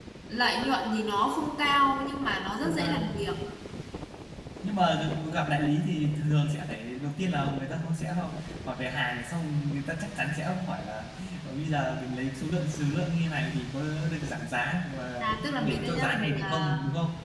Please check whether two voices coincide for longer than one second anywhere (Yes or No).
Yes